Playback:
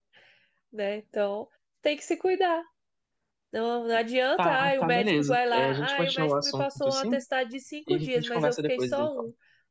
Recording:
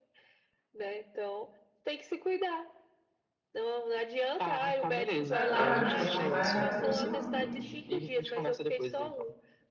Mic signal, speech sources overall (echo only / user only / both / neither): both